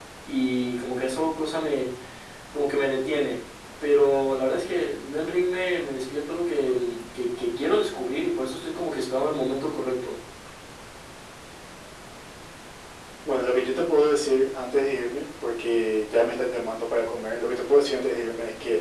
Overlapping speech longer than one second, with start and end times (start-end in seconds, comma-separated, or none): none